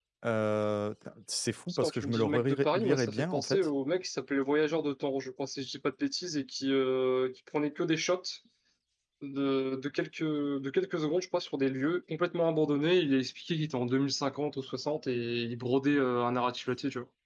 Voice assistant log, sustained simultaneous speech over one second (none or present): present